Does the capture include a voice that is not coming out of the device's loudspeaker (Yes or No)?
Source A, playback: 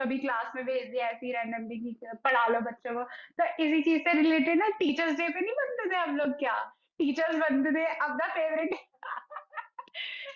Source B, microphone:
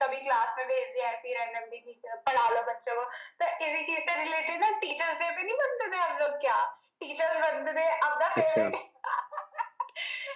Yes